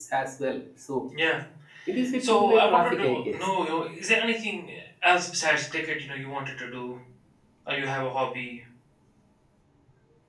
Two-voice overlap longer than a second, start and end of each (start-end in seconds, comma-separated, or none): 2.2-3.5